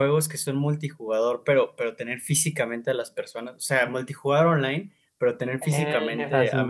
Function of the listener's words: listening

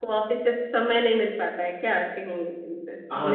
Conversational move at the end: taking over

